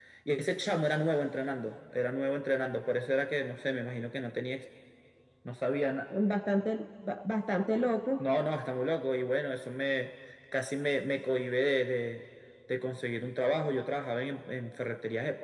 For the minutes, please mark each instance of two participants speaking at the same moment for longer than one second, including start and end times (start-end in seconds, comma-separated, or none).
none